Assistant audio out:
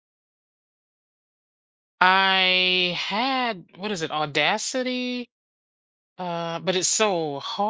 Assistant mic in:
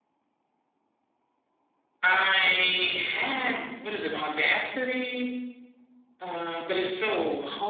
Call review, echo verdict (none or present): present